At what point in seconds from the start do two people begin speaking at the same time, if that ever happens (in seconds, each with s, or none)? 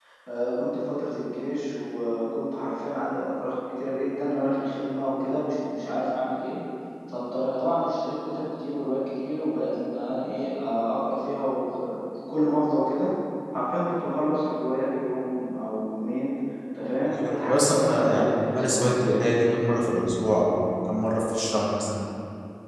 17.1 s